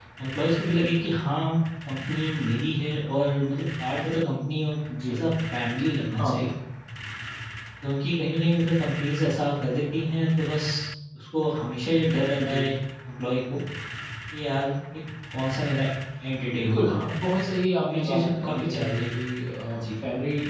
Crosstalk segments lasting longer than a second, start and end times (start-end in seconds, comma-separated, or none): 17.9-19.1